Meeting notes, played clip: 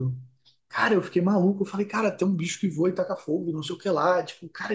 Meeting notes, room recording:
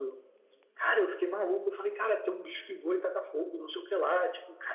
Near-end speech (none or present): none